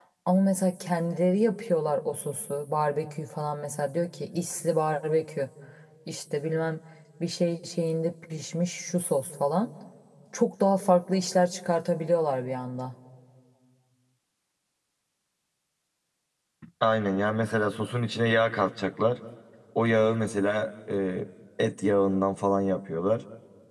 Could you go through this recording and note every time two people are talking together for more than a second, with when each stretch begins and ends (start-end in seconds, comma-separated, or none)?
none